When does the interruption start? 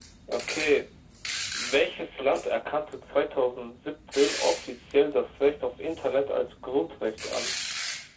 none

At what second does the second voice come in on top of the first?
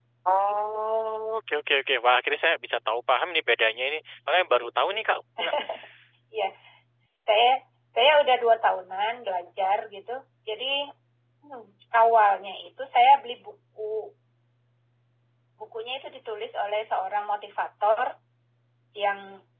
none

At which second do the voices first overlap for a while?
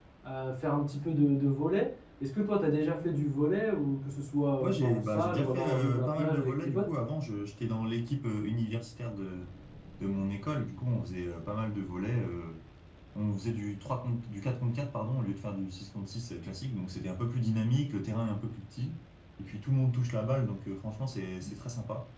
4.6 s

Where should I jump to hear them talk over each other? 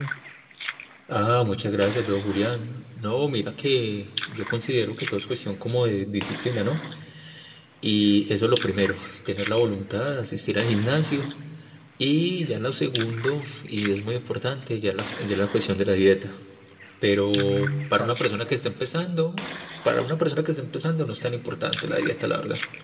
17.3 s

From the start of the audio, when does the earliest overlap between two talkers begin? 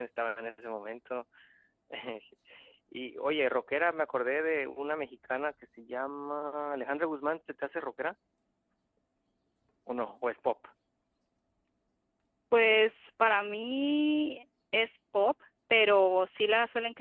none

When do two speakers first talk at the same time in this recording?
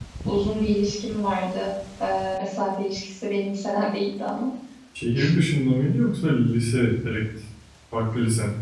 none

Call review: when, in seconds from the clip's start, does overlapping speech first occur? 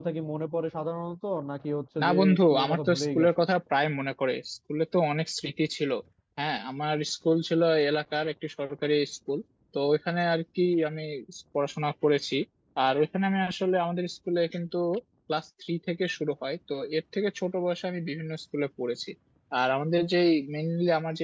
2.0 s

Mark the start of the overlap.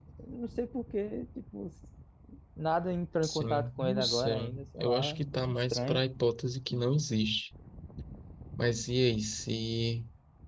3.2 s

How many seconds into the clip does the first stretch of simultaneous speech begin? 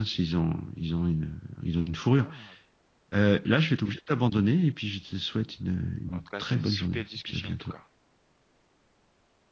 6.1 s

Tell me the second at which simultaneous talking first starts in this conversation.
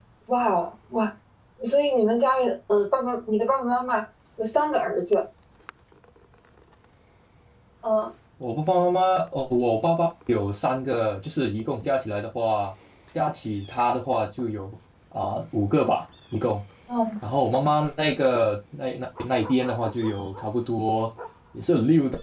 none

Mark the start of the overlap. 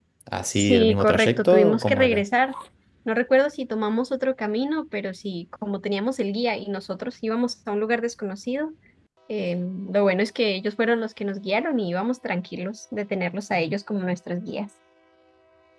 0.5 s

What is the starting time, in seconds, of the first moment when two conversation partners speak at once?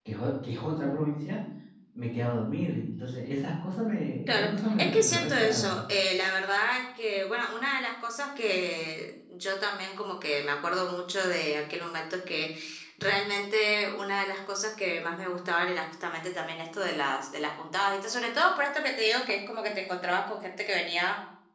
4.3 s

